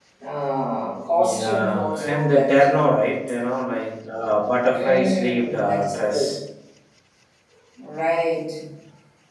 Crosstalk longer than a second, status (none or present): present